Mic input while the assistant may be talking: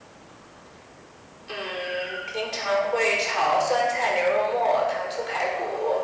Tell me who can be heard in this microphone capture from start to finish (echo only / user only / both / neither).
echo only